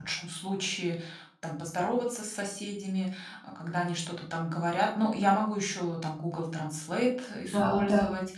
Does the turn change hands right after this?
No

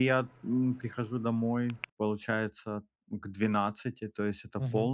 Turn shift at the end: No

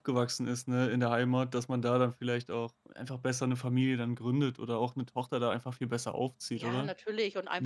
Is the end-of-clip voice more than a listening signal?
Yes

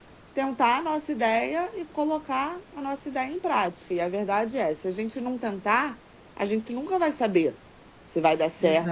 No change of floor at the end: Yes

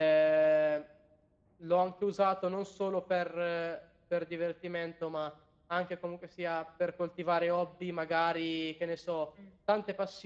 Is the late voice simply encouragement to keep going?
Yes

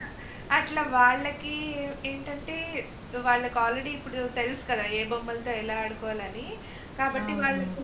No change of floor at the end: Yes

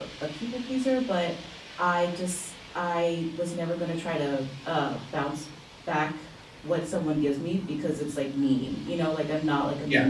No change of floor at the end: Yes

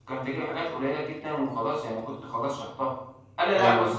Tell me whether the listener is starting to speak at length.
Yes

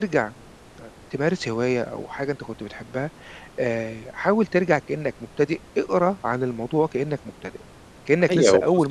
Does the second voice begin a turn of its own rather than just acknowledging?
Yes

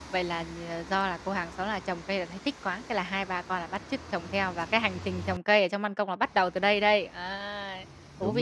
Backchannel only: No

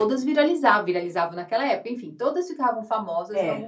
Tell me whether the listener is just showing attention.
Yes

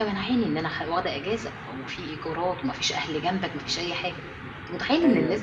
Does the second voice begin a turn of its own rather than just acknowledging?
No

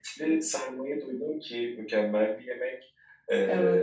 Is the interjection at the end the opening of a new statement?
No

